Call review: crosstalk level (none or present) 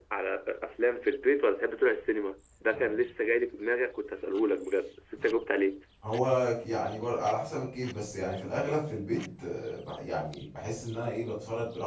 none